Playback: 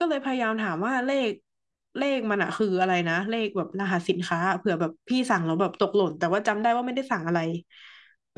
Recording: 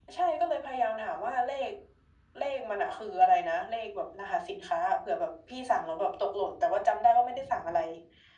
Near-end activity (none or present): none